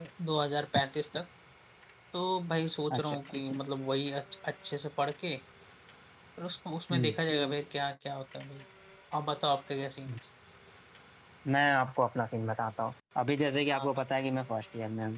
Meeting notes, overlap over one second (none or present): none